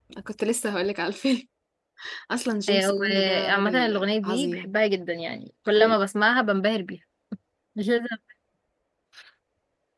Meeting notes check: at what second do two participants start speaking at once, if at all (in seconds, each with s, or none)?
2.7 s